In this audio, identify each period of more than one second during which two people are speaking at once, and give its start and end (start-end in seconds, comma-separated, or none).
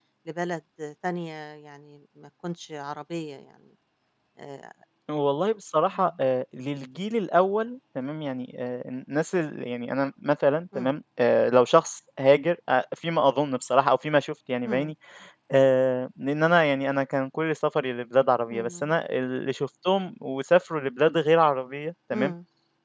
none